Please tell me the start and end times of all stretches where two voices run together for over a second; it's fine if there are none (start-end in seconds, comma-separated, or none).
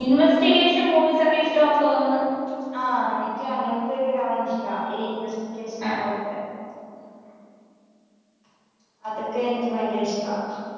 none